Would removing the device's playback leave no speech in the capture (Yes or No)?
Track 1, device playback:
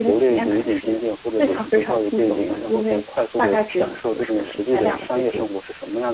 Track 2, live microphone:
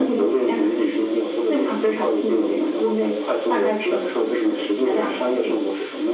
Yes